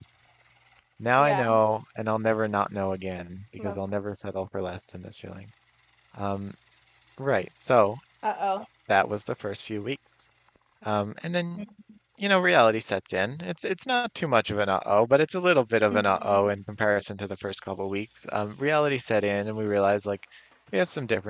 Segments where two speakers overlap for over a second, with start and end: none

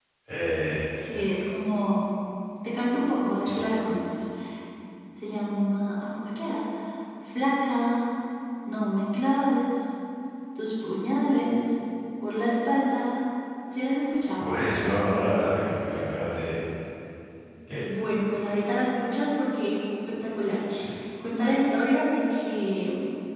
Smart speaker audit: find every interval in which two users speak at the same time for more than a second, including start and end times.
none

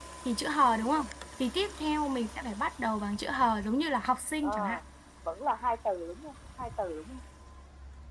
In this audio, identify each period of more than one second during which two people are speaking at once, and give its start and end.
none

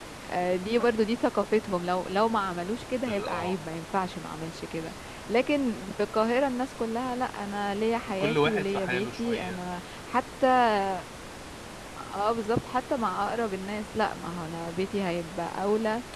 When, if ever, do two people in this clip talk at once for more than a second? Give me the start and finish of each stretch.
8.2-9.6

